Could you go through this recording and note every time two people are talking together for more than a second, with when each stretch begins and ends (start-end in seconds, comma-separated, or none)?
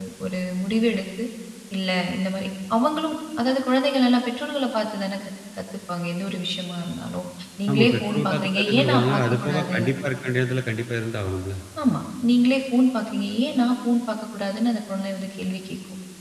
7.7-9.8